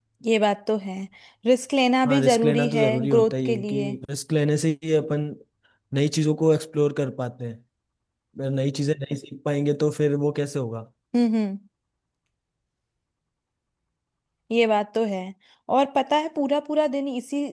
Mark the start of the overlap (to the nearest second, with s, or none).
2 s